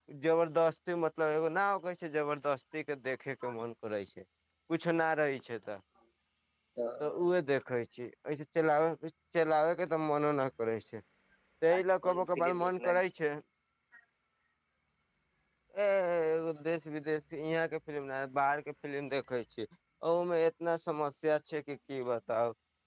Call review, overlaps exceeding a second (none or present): present